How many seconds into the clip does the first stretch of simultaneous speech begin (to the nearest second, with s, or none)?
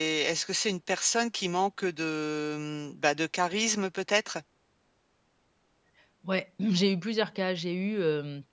none